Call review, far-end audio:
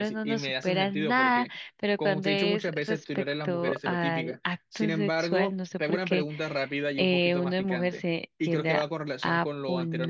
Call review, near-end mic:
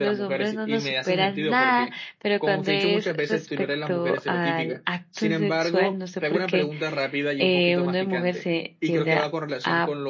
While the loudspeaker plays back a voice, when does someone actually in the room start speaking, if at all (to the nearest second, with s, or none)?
none